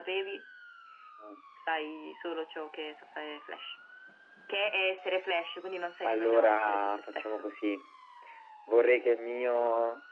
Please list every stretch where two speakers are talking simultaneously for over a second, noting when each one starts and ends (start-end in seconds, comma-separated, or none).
6.0-7.5